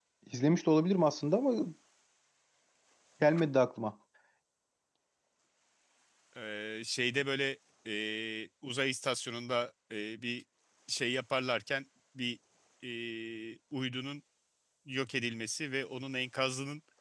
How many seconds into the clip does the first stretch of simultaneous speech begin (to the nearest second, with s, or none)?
none